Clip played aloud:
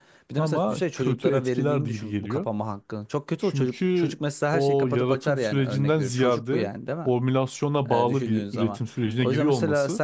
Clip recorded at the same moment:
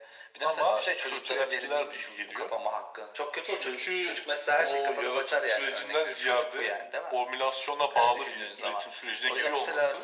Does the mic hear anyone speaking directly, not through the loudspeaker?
No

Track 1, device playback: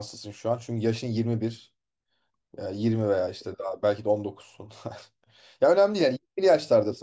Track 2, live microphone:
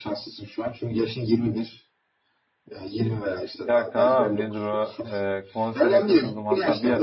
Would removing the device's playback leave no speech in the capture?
No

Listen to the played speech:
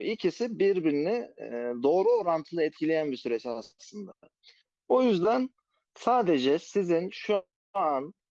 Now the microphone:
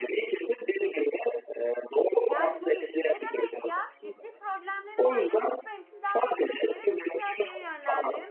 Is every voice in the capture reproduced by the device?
No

